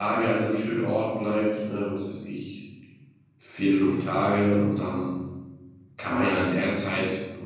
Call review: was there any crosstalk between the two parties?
No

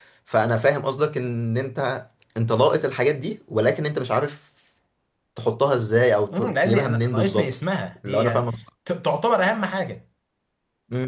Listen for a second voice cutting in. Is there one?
Yes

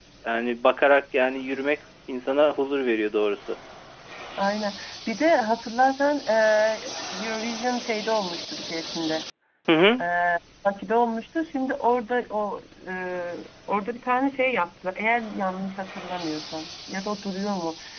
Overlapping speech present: No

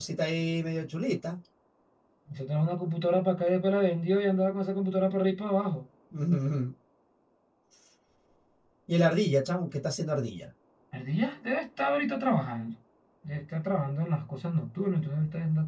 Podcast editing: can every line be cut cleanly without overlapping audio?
Yes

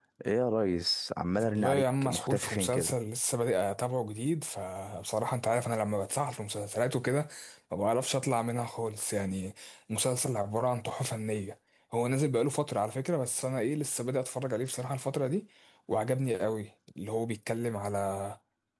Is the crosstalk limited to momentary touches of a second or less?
No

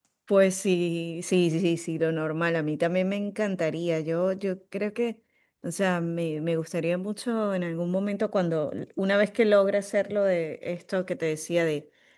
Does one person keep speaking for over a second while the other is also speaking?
No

